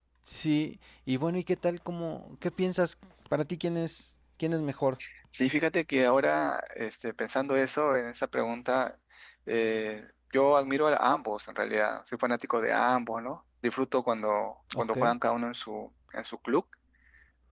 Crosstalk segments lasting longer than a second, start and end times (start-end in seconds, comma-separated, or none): none